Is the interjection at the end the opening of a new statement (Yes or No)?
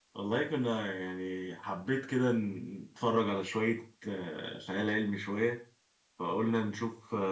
No